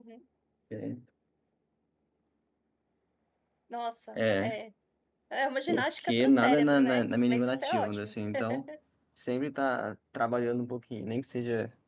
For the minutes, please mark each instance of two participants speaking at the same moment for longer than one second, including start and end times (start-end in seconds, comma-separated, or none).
5.7-8.1